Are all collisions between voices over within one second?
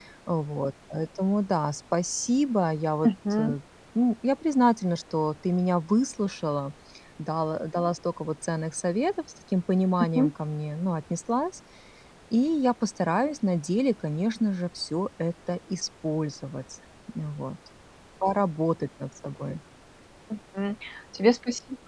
Yes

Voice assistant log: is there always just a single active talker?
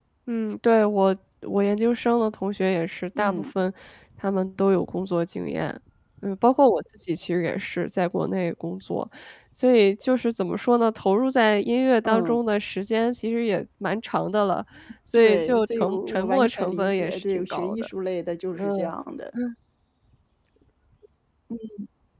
No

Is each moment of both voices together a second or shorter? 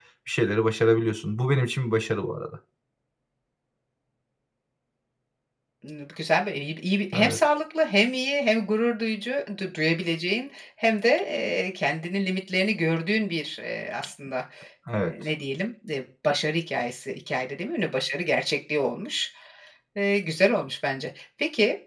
Yes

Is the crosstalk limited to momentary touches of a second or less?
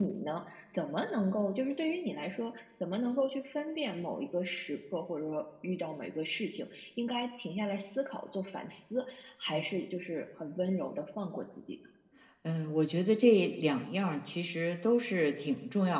Yes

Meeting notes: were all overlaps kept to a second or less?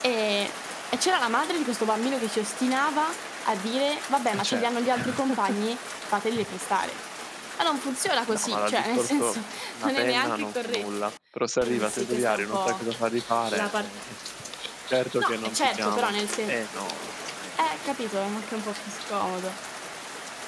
No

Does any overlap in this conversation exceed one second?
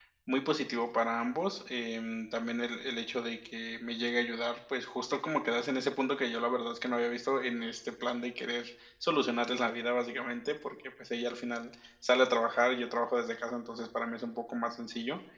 No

